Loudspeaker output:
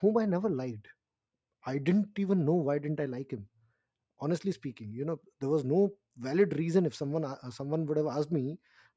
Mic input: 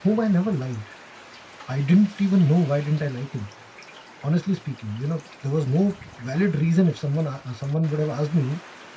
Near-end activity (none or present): none